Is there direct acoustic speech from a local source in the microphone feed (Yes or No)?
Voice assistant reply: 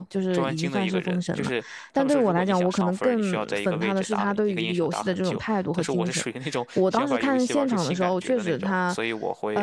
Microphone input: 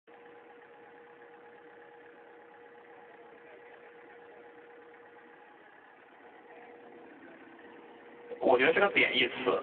Yes